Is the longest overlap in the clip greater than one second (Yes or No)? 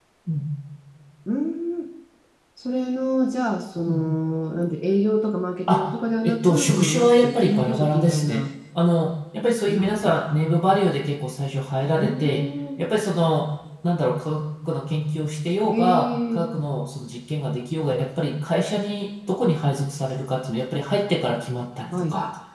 Yes